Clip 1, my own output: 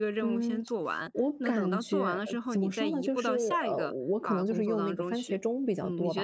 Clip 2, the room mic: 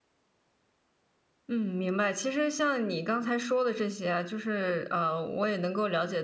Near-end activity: present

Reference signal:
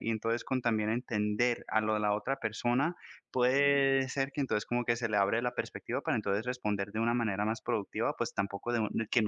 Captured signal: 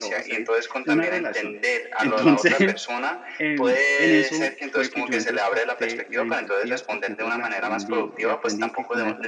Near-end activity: present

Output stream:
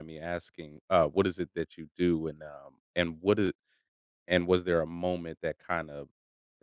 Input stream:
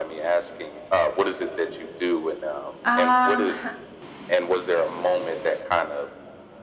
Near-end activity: present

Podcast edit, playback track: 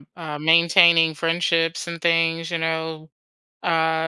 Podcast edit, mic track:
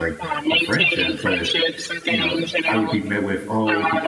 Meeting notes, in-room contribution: present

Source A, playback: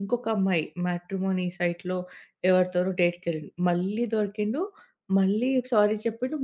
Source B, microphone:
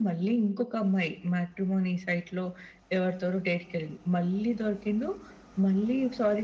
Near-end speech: none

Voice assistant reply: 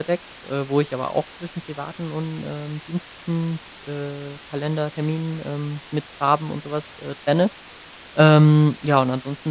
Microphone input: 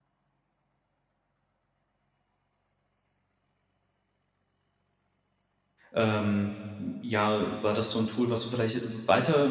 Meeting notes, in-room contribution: present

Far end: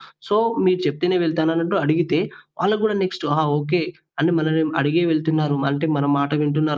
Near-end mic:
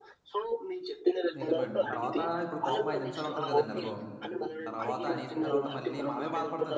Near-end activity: present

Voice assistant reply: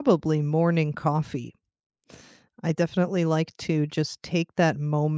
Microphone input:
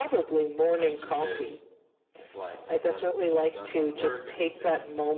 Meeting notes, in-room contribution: present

